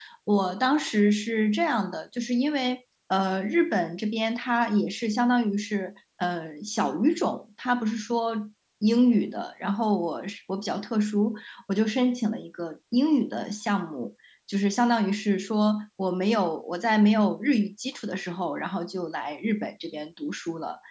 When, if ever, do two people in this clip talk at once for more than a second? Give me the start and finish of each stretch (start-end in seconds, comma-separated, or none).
none